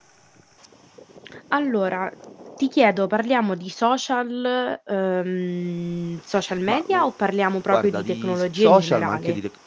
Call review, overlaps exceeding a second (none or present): present